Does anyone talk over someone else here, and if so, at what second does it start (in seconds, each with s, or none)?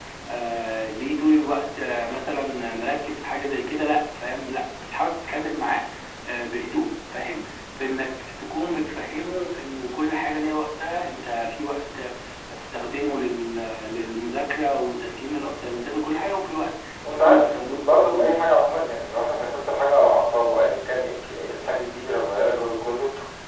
17.0 s